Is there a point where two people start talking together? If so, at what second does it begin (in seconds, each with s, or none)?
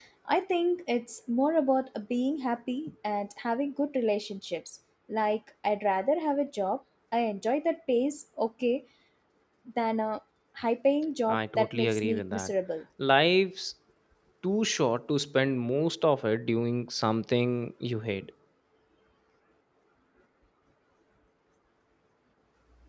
11.3 s